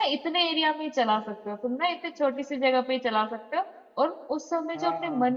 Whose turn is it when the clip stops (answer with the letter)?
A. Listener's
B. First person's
B